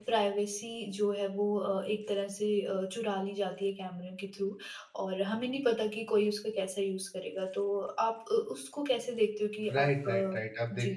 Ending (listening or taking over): taking over